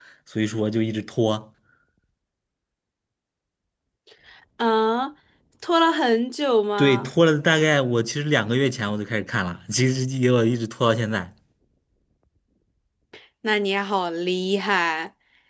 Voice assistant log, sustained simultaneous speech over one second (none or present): none